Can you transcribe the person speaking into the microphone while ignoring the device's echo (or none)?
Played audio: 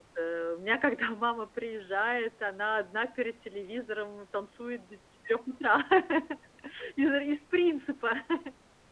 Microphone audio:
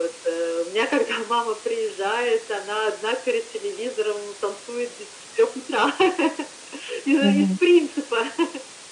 Мгм.